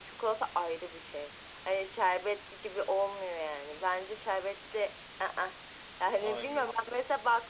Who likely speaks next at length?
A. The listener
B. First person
B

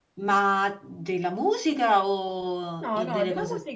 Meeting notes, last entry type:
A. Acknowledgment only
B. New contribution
B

